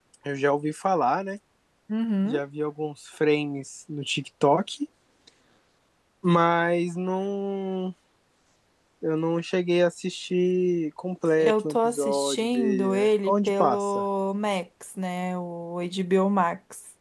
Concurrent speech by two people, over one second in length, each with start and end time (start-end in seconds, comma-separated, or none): 11.4-14.0